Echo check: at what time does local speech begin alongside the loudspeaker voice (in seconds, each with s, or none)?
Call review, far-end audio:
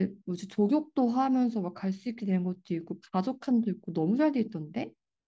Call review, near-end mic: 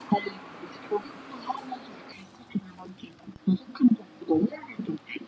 none